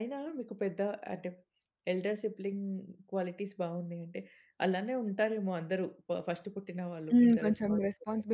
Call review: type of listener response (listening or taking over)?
taking over